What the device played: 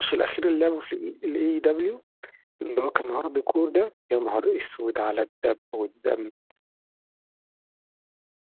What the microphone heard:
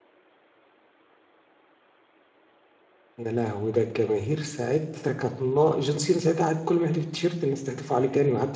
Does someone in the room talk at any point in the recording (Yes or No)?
Yes